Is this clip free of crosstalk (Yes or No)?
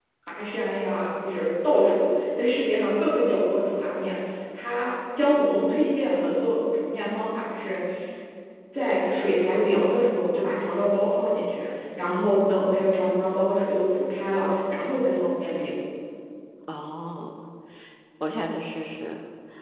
Yes